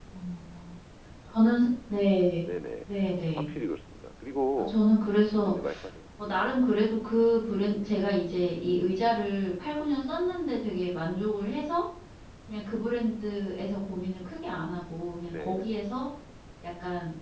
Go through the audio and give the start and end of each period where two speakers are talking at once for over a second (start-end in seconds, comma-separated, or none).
none